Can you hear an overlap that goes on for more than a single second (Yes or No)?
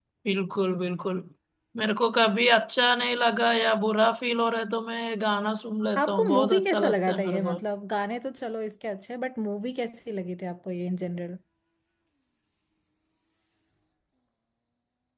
Yes